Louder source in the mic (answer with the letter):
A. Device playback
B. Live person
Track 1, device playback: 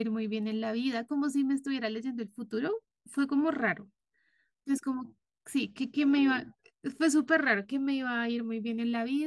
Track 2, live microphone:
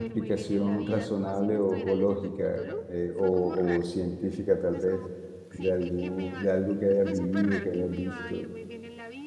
B